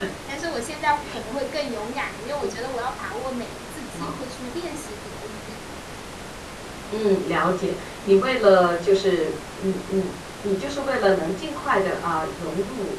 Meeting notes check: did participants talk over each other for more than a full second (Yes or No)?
No